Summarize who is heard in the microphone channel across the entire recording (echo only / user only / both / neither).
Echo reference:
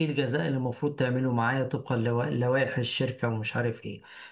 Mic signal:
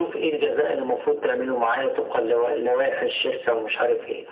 echo only